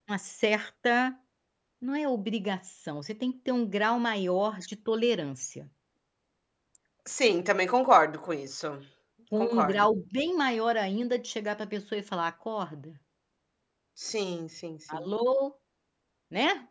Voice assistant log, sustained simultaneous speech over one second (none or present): none